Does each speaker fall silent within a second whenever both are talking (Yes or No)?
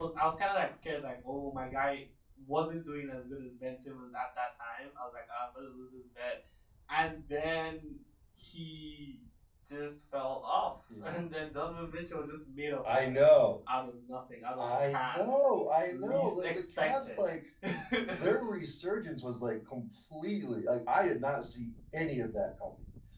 No